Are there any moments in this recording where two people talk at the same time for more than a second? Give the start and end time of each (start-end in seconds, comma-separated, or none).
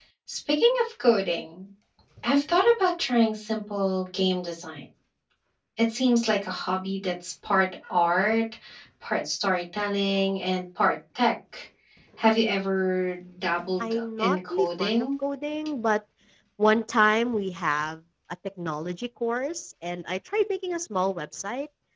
13.8-15.1